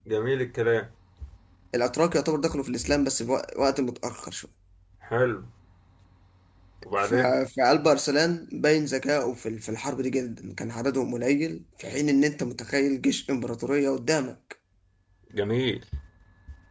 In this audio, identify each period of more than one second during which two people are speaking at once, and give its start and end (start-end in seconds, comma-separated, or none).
none